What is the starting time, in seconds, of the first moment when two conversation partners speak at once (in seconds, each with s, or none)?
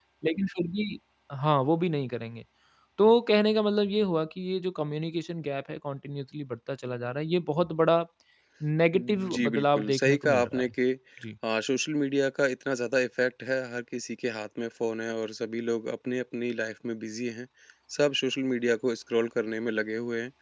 9.0 s